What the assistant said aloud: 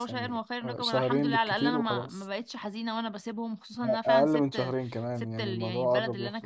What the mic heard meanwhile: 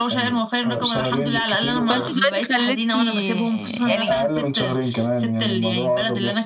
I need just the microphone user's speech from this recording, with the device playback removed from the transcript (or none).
فانت دلوقتي خلتني يعني